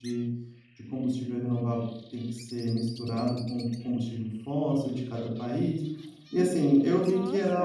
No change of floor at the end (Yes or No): No